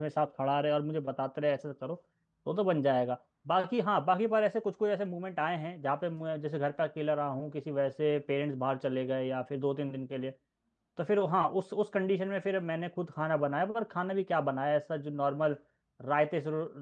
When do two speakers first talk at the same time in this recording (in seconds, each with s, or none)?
none